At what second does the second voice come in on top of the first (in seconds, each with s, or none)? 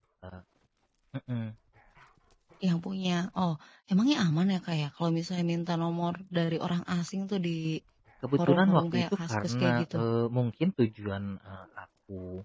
8.4 s